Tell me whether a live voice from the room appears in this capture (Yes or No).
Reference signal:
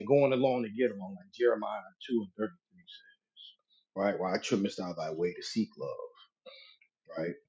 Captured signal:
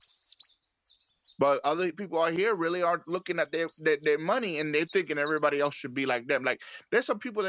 Yes